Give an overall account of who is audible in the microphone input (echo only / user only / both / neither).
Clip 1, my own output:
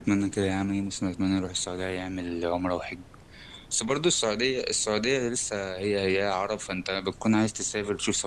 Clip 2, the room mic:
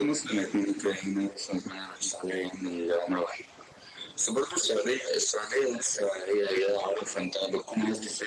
echo only